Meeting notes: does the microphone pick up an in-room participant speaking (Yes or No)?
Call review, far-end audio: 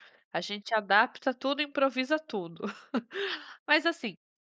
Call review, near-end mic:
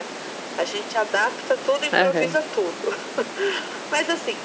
Yes